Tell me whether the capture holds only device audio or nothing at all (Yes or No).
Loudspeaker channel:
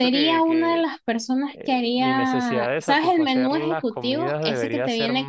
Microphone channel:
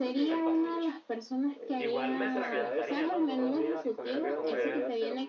No